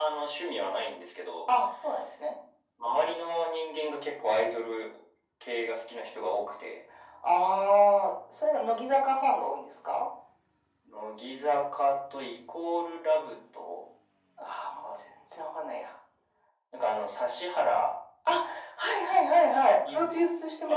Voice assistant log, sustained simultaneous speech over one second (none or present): none